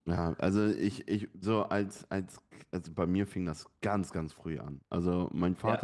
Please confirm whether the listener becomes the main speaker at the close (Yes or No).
No